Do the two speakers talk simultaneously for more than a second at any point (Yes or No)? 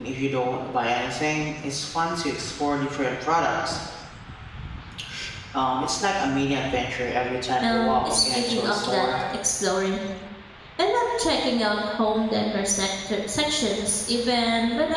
Yes